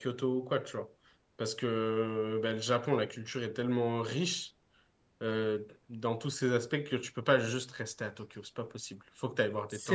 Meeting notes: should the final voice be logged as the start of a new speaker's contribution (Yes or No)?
No